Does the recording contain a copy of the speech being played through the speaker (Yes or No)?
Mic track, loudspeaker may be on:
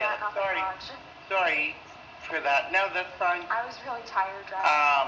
Yes